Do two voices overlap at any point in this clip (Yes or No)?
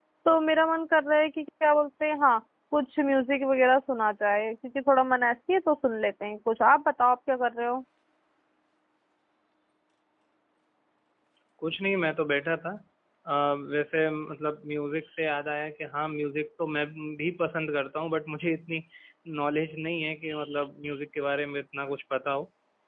No